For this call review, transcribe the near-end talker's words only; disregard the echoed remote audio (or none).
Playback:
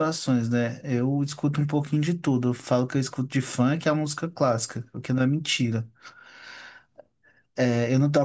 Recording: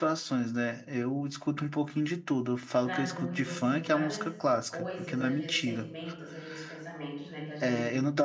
traduz assim várias coisas, às vezes sentimentos, às vezes pensamentos, né, que a gente